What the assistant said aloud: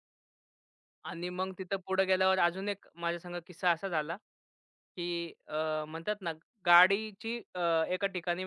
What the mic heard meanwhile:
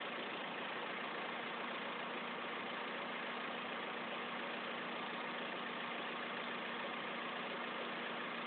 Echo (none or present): none